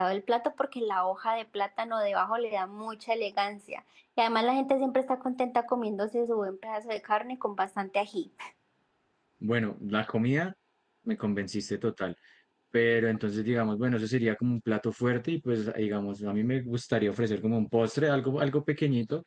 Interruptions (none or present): none